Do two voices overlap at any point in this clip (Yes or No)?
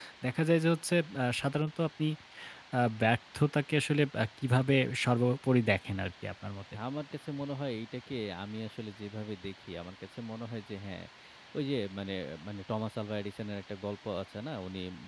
No